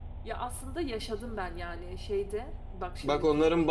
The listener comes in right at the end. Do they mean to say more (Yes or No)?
Yes